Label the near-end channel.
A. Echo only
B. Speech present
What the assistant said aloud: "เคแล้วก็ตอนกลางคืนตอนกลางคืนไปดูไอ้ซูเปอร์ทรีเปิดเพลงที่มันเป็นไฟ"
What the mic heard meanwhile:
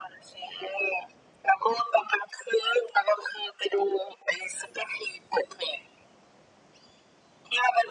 A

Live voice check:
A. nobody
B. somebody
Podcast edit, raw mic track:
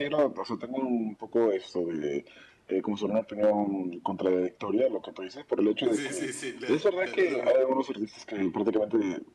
B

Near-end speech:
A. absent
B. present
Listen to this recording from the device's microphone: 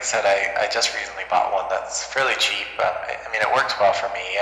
A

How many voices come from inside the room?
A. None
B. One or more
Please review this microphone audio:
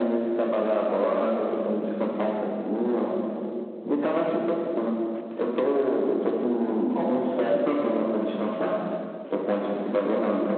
A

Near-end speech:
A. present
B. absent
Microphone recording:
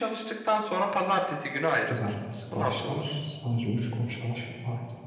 A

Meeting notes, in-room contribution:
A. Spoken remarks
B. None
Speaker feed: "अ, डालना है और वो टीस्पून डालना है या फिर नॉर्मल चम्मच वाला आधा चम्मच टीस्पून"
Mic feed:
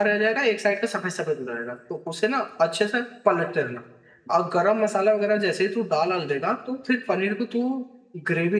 A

